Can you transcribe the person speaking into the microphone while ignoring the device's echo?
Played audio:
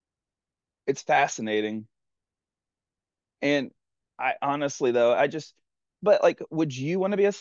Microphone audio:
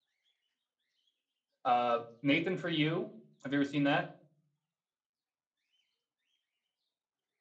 Uh, Nathan for you. Have you ever seen that?

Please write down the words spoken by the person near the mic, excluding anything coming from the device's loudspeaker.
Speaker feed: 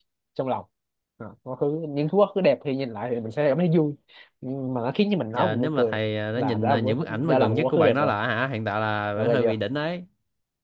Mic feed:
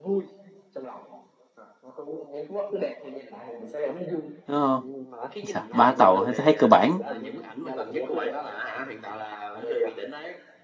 đúng không Chà, ba tàu thấy, thấy cơ bản

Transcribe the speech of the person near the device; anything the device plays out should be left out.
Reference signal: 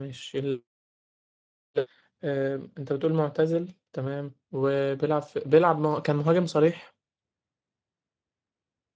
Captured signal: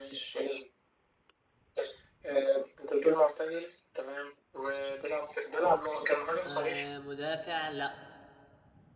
آه، مدافع لا

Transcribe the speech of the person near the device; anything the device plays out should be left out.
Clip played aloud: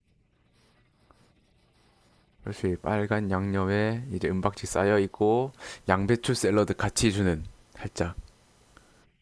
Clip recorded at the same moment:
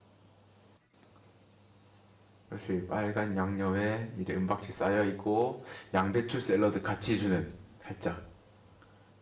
none

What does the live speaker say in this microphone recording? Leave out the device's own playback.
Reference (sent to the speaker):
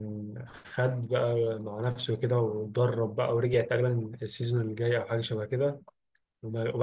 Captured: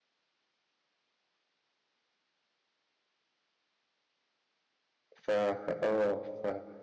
ف ف اه ف...

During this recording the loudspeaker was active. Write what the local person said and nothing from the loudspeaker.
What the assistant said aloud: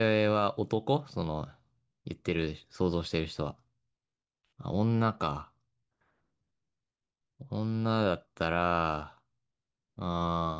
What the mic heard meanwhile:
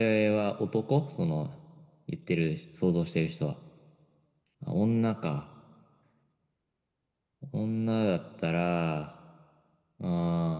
none

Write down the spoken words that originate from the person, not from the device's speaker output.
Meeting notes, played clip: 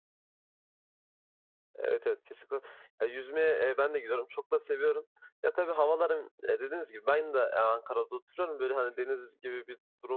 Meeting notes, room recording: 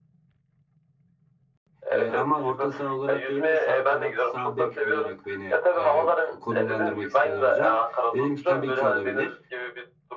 Ee, ama orta saha olarak değil de sağ kanat, sağ bek olarak beni e, konumlandırmak istedi hocam. Dedim ki tabii ki olabilir.

